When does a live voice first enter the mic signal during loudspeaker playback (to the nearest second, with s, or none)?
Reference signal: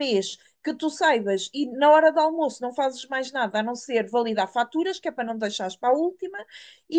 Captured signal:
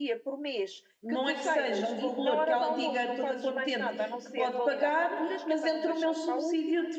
1 s